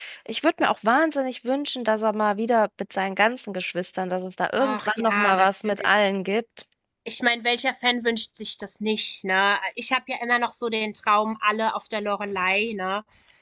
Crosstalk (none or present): present